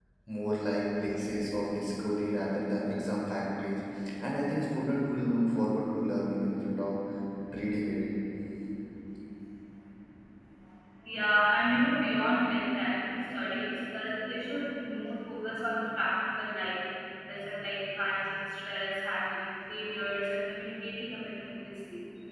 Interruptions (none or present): none